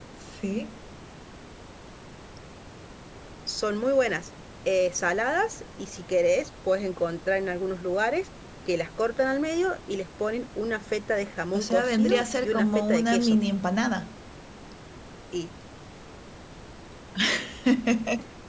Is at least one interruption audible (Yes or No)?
Yes